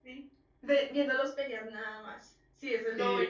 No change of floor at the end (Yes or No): No